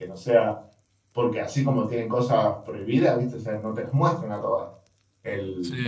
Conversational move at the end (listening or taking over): listening